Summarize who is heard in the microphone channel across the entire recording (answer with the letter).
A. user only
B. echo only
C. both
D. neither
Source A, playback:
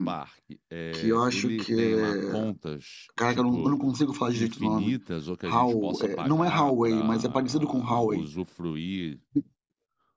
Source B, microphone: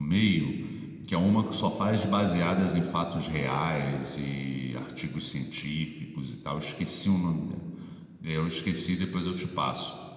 A